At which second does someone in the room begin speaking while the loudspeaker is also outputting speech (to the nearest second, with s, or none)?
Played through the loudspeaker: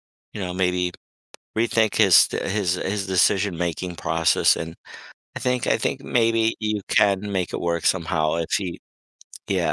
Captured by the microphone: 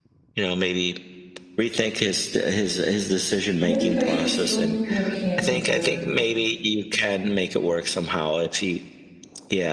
4 s